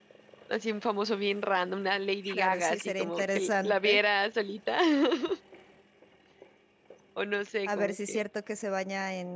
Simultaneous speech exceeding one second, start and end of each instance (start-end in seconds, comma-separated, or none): 2.3-4.0